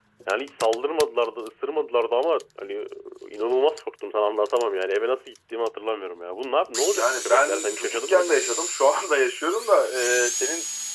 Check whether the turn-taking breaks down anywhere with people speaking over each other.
Yes, from 6.9 s

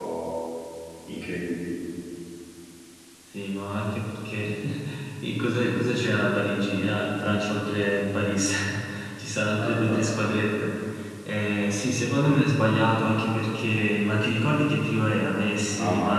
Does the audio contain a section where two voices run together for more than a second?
No

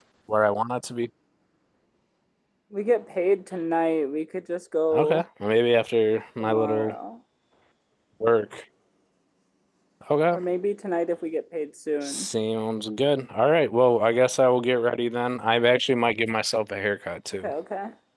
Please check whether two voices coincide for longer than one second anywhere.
No

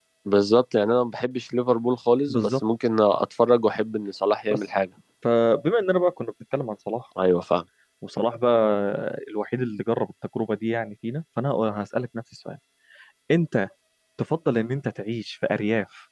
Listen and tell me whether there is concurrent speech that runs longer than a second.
No

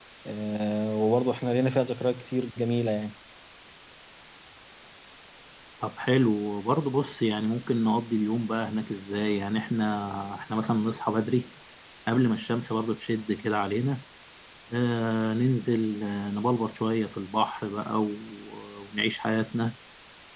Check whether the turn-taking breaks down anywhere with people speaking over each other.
No

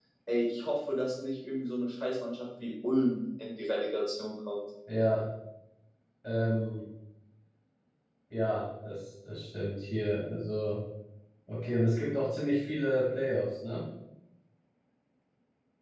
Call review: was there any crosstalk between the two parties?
No

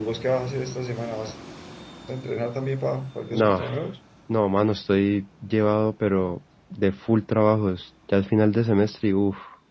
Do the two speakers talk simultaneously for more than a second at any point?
No

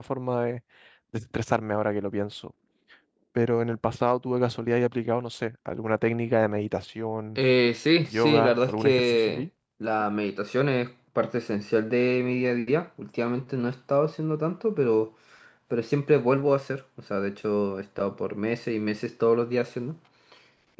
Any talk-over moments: Yes, from 8.1 s

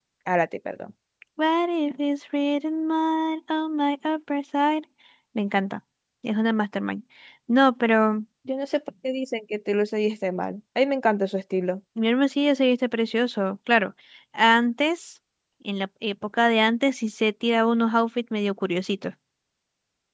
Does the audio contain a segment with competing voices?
No

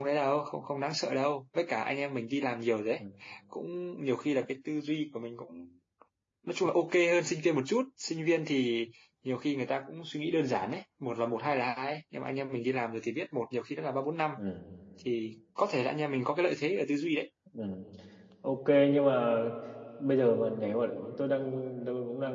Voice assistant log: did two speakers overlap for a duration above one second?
No

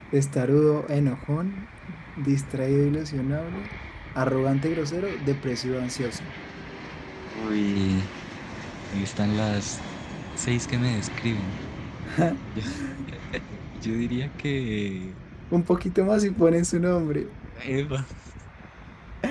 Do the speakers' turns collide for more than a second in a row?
No

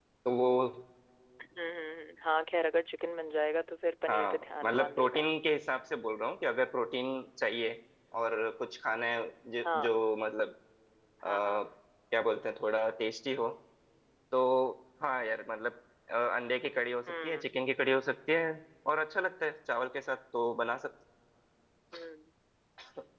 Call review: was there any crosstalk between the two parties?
Yes, from 4.1 s

